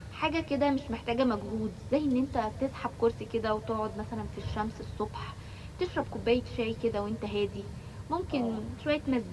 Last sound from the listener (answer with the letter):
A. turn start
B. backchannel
B